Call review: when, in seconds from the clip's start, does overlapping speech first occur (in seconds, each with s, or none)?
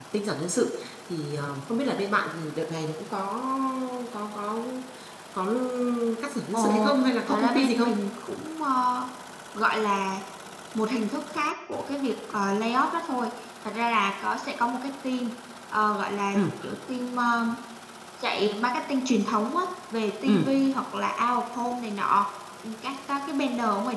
6.5 s